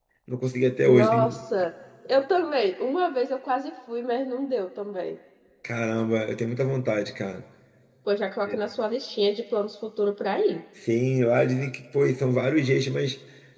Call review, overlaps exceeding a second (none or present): none